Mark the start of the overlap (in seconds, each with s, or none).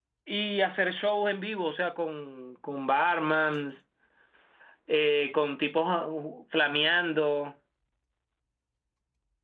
none